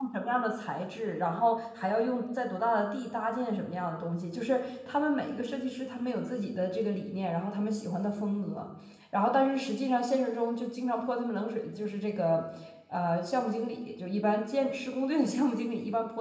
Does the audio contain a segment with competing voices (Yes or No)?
No